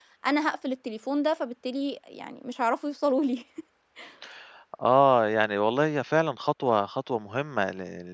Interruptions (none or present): none